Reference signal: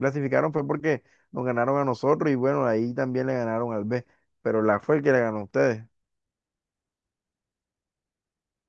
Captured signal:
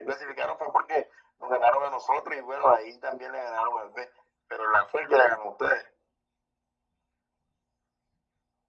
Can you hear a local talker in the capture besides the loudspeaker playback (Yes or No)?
No